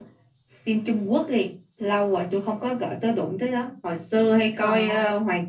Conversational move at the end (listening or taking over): listening